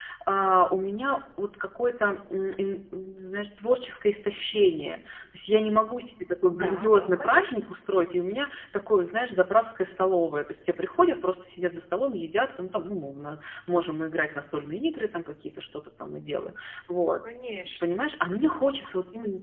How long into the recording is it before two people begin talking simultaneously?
6.5 s

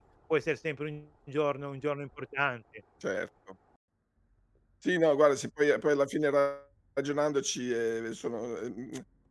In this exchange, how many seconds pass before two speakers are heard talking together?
none

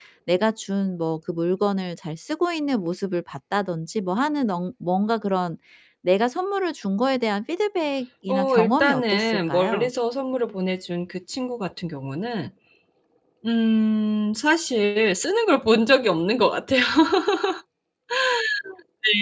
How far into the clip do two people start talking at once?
8.3 s

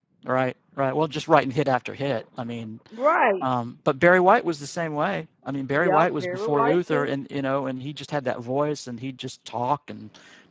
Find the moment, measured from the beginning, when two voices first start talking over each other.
5.7 s

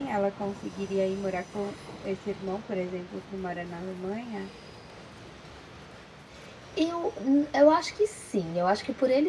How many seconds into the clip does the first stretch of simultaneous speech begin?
none

